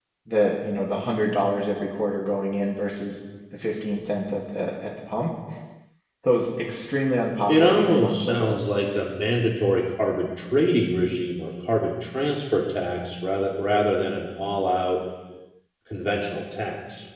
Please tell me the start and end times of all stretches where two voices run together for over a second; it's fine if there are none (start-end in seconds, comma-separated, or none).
7.5-8.7